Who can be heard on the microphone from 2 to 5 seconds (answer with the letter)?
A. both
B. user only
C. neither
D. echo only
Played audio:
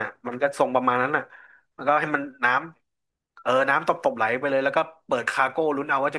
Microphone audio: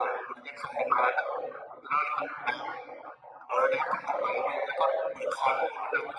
D